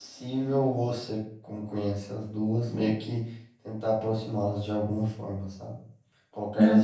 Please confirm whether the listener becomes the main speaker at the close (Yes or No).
No